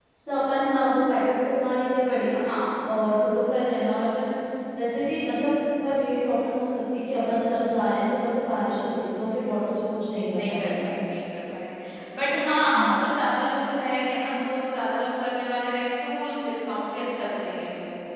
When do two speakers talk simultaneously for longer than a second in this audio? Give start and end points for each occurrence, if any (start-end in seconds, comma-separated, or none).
none